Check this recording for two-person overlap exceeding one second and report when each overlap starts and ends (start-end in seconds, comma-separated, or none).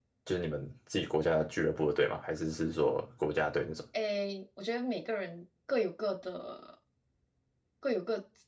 none